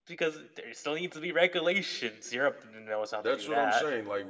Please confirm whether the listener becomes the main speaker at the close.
Yes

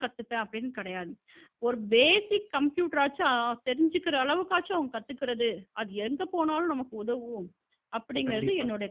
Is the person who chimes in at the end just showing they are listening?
No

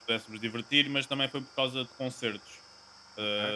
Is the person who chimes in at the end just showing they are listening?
Yes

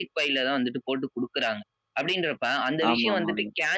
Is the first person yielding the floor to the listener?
No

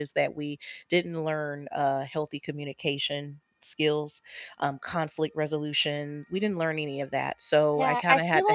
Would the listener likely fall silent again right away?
No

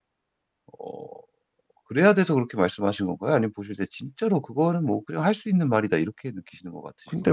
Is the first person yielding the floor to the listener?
Yes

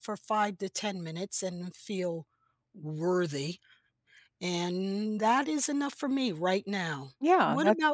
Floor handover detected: Yes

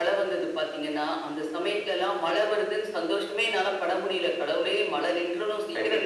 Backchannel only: No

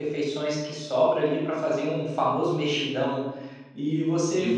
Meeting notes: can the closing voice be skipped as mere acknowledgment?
Yes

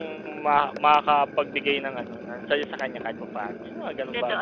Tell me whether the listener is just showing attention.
No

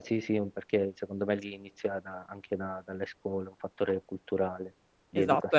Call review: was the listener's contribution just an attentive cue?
No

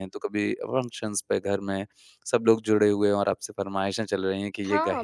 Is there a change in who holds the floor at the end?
Yes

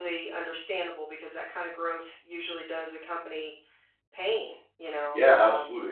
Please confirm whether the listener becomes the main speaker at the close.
Yes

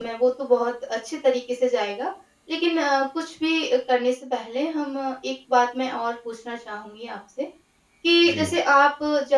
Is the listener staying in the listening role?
Yes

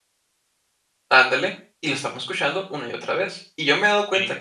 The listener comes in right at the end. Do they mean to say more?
No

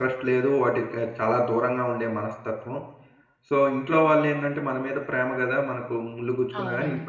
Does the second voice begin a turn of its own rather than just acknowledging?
Yes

